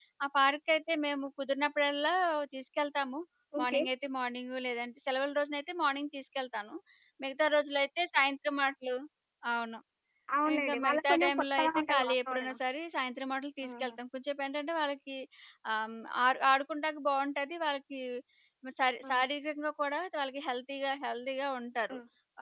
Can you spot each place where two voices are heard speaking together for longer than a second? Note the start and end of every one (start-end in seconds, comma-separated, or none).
10.6-12.5